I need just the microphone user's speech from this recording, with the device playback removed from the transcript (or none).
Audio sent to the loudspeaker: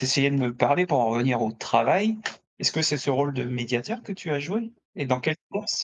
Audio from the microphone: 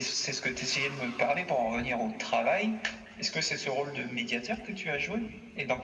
none